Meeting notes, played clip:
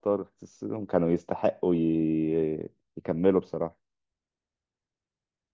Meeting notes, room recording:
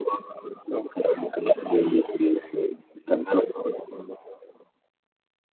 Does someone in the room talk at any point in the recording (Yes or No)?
No